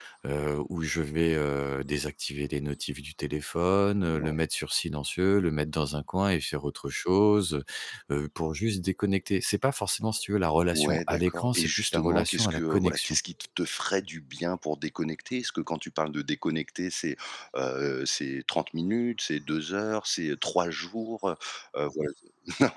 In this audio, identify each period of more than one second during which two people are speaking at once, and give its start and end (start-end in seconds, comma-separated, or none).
10.7-13.2